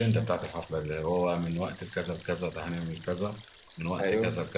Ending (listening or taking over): taking over